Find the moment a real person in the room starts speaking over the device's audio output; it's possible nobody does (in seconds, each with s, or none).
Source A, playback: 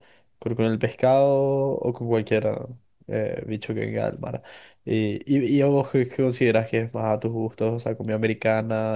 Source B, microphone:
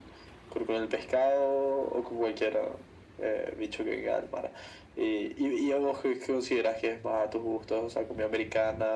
none